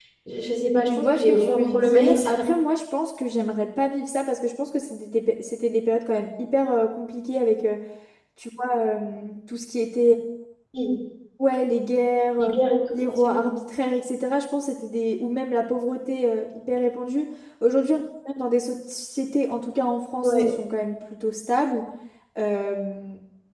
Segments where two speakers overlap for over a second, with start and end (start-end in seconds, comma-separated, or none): 0.9-2.5